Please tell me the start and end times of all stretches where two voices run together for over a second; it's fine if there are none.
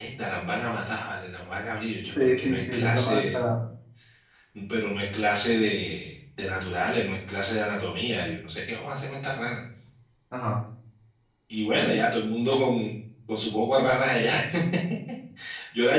2.2-3.4

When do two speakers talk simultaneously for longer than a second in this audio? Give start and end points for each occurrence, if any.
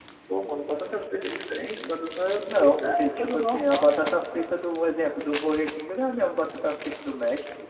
2.6-4.2

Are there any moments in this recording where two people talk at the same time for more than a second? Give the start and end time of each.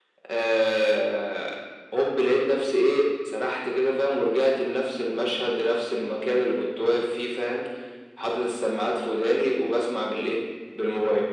none

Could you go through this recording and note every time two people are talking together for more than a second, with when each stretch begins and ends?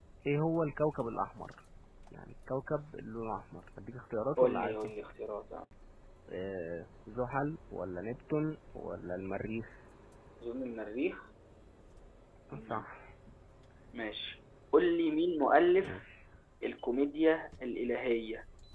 none

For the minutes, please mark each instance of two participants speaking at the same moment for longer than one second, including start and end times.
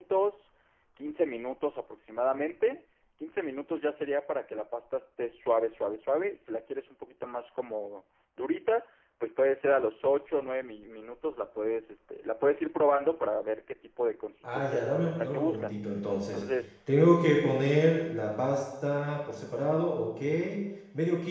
14.5-15.8

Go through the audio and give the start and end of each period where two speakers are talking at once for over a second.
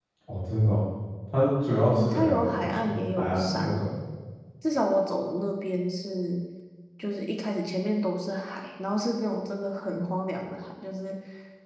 2.0-3.8

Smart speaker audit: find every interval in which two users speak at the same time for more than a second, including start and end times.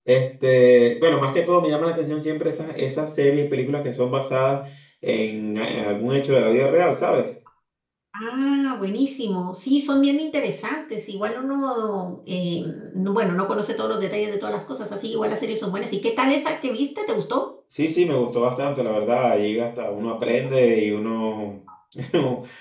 none

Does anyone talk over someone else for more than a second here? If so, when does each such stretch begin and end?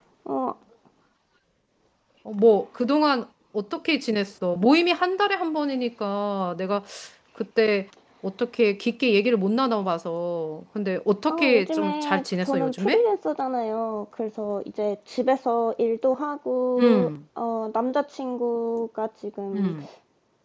11.3-13.0

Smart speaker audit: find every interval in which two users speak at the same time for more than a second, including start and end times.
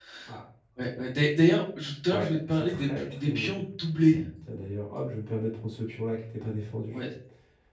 2.1-3.6

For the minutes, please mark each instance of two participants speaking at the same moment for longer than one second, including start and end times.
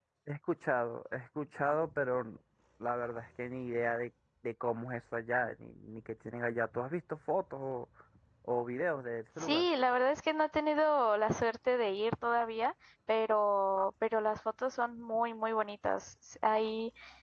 none

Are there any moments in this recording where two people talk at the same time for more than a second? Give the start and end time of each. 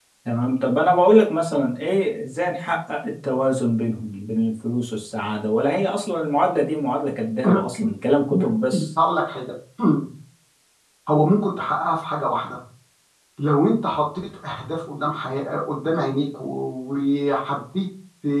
none

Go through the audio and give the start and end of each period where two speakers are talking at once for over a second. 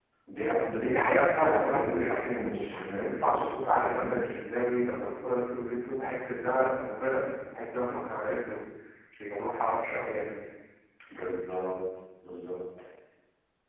0.9-3.1

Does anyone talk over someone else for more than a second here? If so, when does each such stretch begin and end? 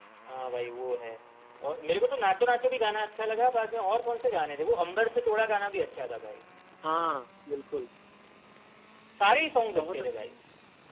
none

